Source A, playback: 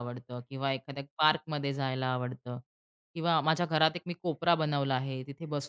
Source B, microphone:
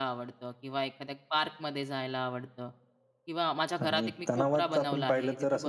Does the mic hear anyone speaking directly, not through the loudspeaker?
Yes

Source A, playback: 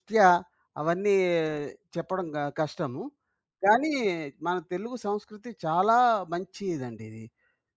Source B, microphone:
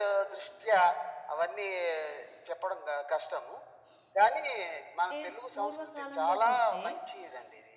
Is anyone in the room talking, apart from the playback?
Yes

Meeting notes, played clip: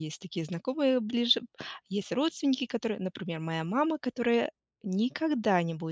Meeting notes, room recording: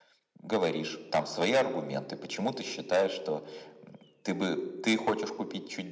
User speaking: Yes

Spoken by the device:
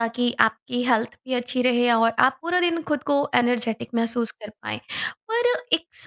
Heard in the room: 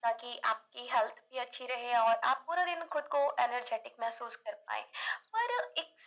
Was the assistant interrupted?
No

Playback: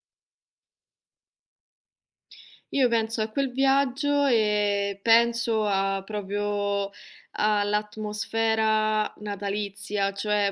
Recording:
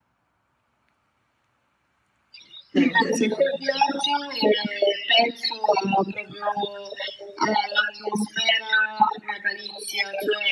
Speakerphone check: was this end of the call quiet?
No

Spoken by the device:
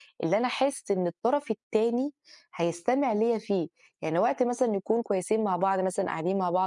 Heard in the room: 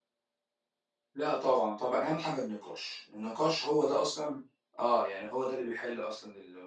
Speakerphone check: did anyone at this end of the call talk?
Yes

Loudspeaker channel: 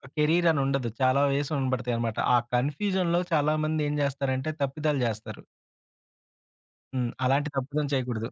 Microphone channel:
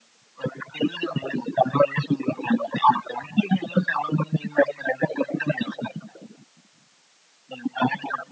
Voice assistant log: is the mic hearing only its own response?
Yes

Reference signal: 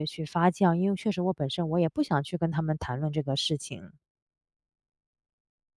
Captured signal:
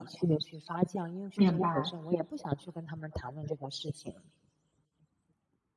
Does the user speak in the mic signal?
Yes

